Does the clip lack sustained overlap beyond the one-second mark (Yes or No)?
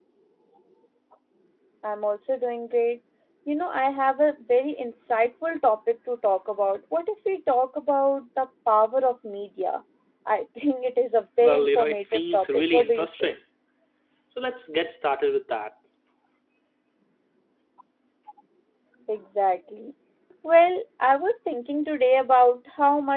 No